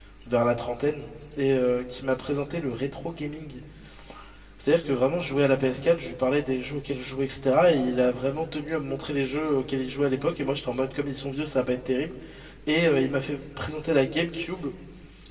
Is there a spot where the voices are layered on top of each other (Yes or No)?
No